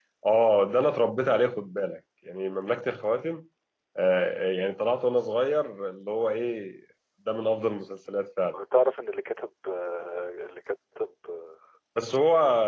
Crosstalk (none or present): none